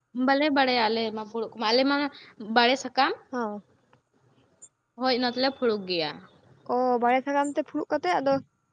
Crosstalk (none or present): none